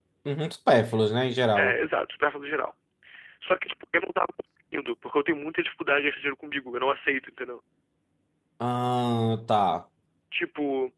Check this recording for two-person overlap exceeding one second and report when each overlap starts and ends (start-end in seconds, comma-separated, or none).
none